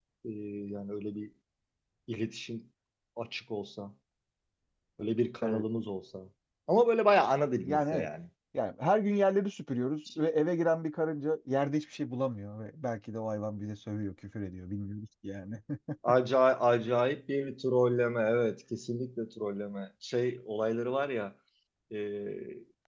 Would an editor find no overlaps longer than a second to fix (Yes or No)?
Yes